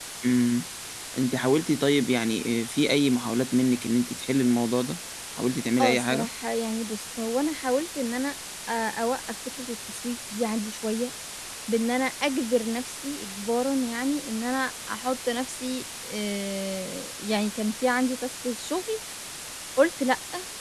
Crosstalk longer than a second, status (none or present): none